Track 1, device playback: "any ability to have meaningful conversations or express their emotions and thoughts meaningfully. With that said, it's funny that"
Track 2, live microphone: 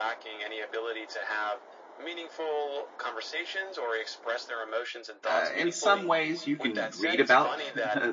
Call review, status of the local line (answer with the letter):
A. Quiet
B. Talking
B